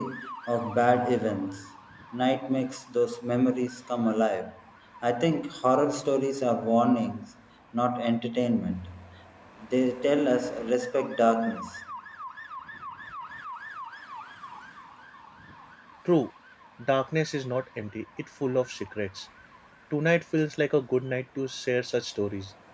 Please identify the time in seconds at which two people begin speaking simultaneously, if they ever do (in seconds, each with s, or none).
none